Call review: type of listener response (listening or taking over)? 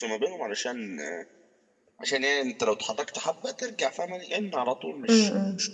listening